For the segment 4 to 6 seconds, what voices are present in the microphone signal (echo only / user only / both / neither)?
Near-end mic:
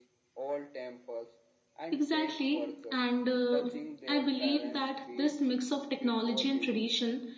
both